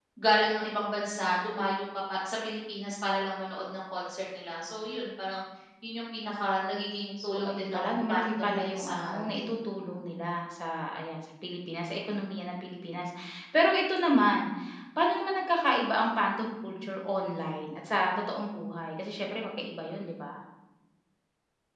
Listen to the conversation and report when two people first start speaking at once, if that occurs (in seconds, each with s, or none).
7.2 s